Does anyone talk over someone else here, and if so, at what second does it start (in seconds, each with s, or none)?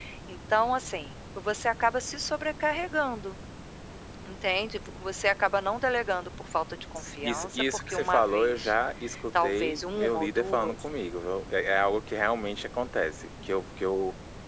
7.2 s